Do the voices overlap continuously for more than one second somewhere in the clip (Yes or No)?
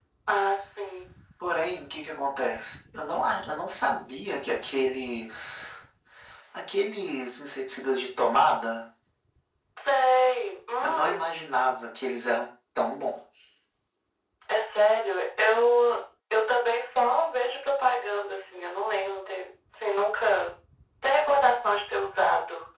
No